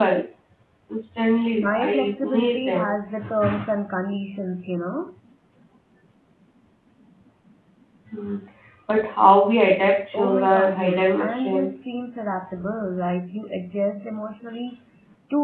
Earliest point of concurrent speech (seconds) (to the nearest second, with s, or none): 2 s